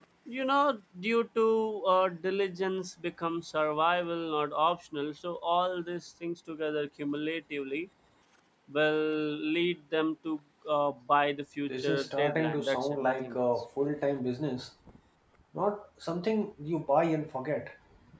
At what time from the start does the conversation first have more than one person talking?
11.7 s

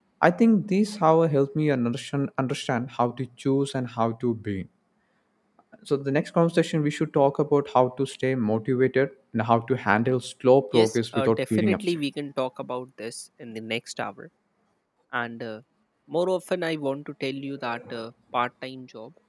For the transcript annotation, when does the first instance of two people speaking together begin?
10.7 s

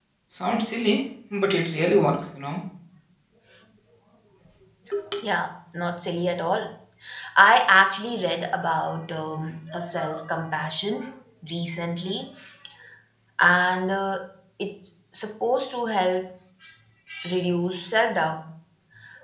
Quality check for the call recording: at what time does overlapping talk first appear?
none

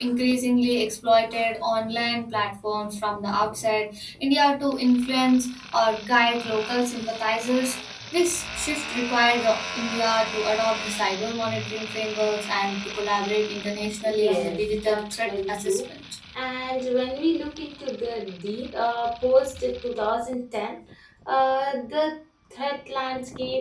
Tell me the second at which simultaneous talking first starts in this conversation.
14.0 s

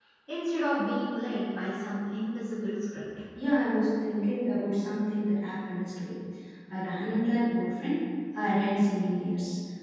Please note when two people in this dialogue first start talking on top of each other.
none

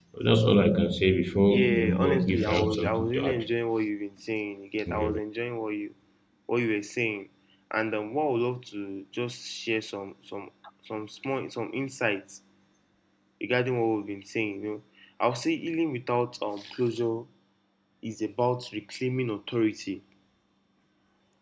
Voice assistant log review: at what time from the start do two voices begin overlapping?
1.5 s

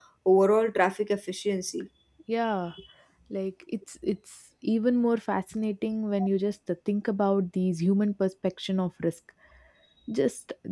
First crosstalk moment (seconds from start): none

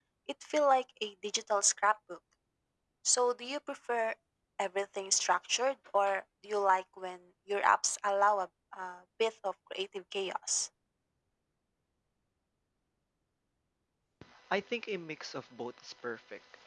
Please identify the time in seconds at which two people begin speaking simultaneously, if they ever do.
none

